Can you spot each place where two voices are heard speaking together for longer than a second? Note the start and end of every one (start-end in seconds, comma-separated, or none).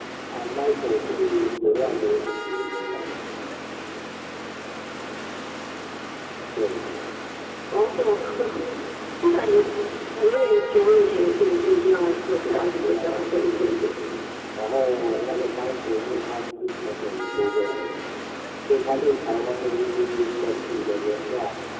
12.4-13.8